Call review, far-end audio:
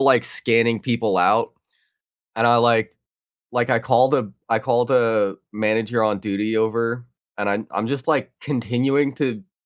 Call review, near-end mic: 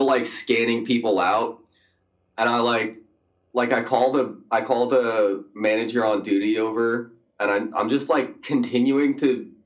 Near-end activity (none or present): none